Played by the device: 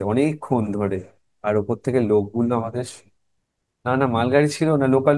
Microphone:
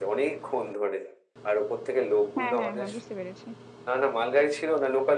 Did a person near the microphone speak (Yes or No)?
Yes